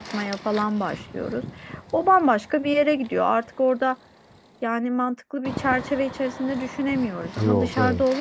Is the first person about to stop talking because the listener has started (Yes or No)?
No